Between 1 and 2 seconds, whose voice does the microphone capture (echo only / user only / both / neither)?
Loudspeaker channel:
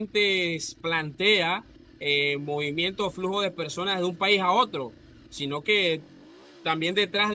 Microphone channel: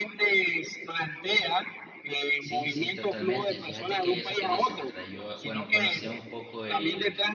echo only